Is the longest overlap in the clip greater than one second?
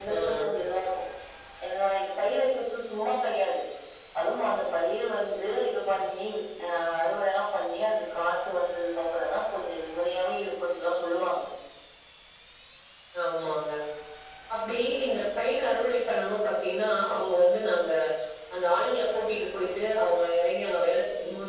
No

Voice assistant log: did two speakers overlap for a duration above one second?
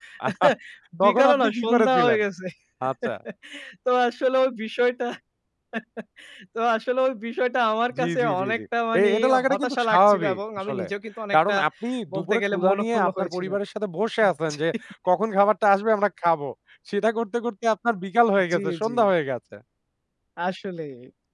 Yes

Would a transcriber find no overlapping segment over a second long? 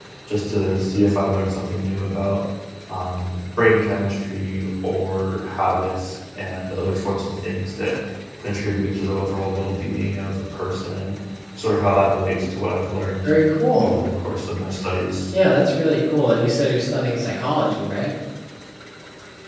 Yes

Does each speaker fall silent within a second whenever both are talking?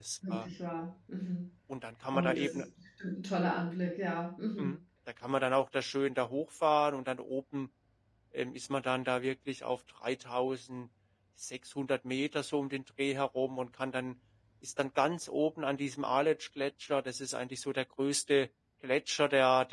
Yes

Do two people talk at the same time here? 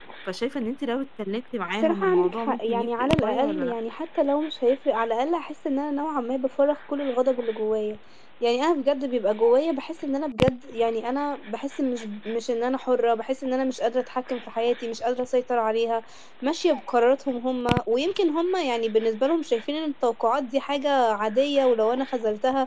Yes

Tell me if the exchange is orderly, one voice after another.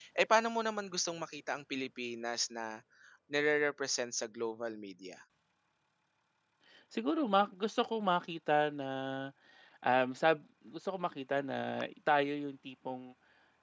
Yes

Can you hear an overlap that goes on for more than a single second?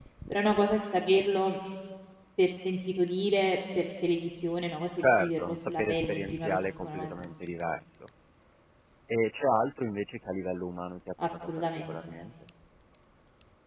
Yes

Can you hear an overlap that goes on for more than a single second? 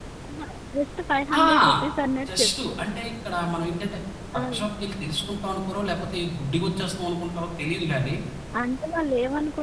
No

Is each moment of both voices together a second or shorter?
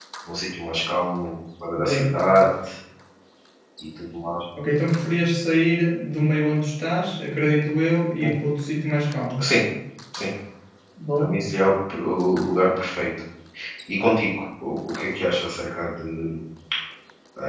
Yes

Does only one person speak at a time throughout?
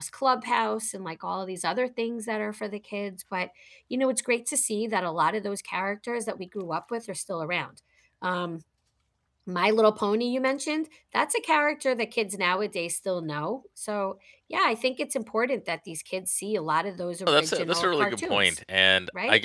No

